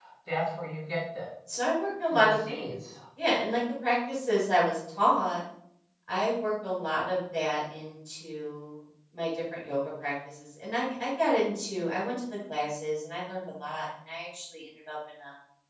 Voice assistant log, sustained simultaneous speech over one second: none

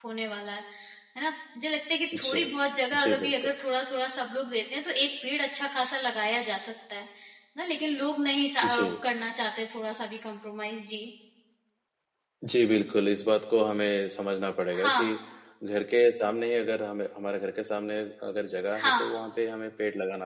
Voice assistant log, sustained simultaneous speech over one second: none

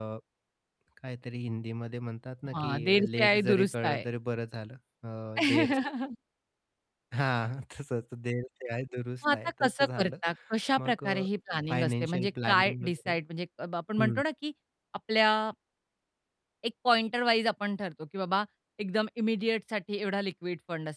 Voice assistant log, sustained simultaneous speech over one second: present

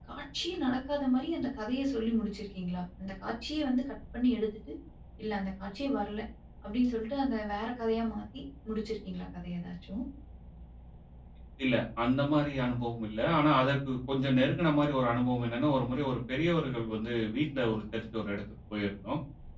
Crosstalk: none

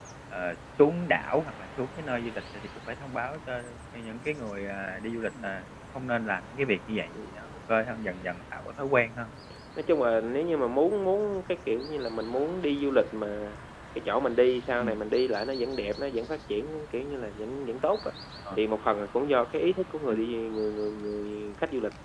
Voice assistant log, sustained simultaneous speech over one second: none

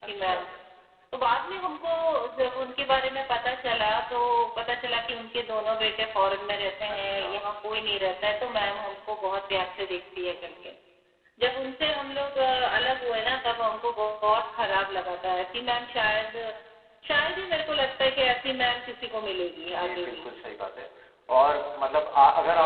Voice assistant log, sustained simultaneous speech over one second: none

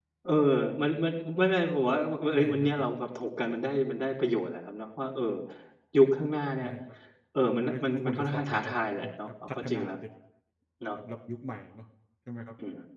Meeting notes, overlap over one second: present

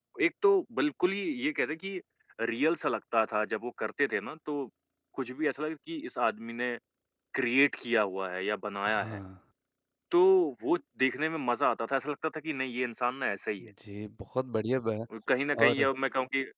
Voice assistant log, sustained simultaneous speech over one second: none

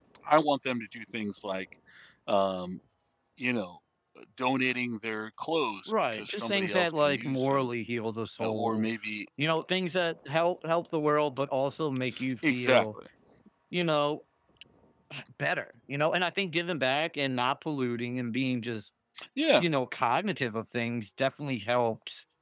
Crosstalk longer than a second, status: present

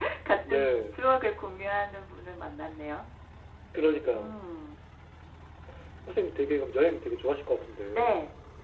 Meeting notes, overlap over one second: none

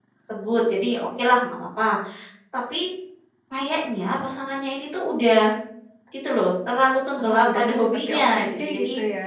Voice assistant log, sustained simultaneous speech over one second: present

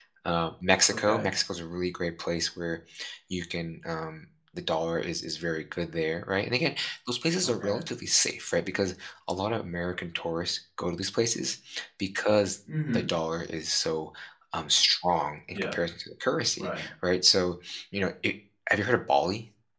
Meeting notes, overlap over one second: none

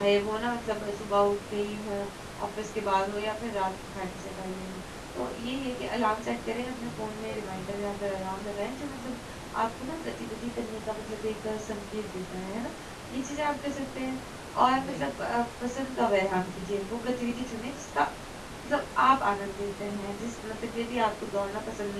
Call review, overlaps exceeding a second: present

